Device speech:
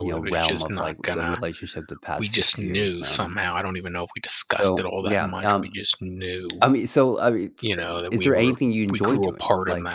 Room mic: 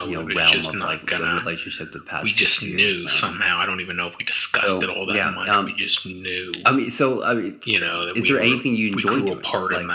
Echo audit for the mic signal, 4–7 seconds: echo only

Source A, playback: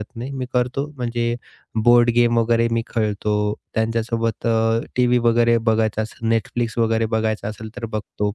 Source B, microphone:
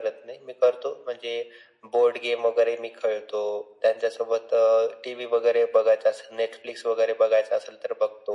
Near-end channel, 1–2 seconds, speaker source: echo only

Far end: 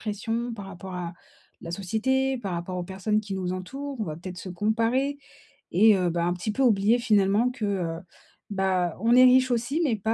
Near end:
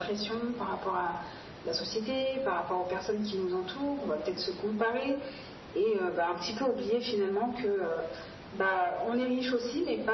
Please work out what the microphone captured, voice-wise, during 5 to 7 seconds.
echo only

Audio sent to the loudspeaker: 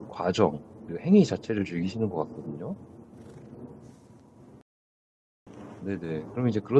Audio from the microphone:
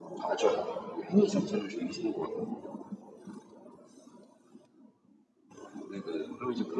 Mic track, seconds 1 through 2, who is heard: echo only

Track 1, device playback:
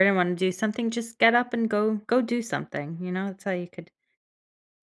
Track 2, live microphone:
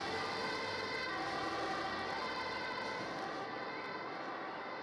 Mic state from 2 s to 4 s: neither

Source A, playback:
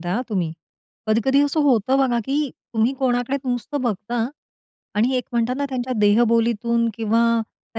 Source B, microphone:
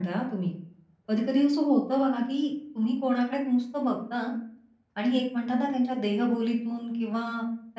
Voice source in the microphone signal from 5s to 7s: echo only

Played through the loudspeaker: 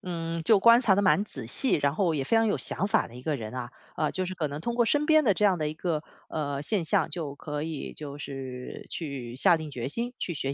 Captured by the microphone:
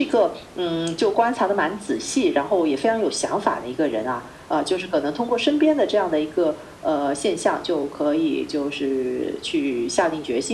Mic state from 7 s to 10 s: echo only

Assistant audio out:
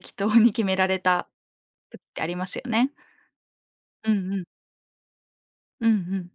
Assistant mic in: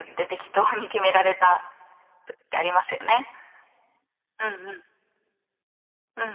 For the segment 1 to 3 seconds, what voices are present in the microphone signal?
echo only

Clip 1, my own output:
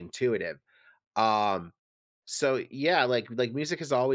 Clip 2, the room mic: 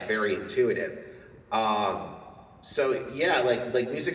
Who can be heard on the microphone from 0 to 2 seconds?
echo only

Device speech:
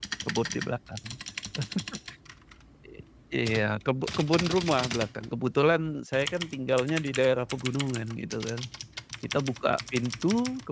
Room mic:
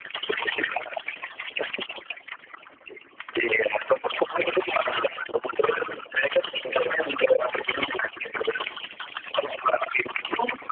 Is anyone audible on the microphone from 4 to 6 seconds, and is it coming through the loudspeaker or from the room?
echo only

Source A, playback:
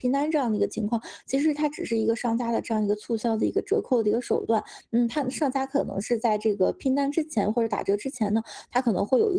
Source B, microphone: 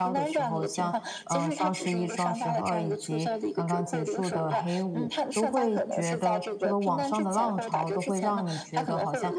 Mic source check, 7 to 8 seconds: both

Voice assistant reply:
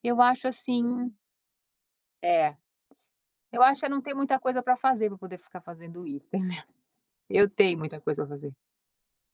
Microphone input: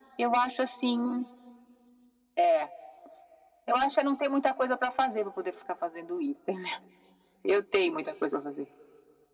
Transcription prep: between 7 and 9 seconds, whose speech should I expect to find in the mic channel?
echo only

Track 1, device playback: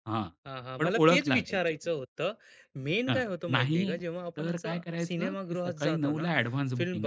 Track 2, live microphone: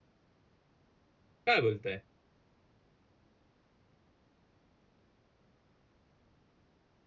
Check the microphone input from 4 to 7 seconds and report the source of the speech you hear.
neither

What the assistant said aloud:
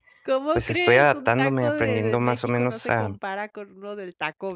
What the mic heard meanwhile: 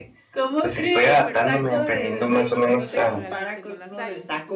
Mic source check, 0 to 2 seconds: both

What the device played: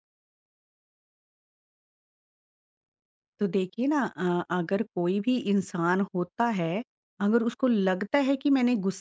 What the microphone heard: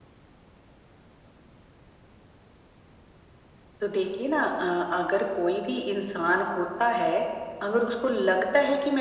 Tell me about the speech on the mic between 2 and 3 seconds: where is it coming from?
neither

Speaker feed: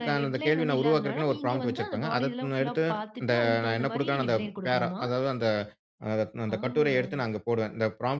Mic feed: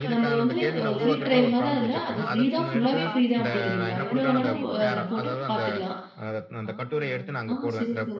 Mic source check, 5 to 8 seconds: both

